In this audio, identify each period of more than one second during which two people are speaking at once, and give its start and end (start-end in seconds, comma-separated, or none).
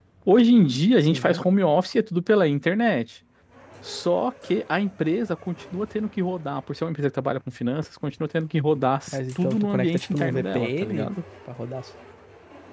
9.1-11.1